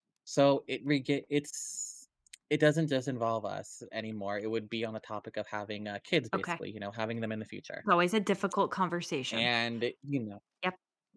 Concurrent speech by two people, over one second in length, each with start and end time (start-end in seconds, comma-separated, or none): none